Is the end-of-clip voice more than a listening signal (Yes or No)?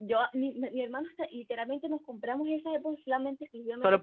Yes